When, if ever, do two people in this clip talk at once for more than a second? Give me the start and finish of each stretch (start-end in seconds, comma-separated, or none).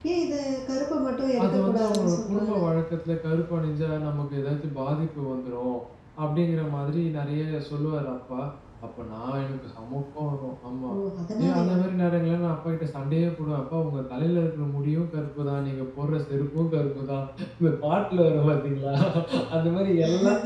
1.4-2.6